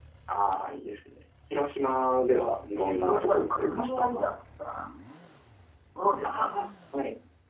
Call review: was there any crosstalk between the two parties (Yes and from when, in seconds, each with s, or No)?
Yes, from 2.8 s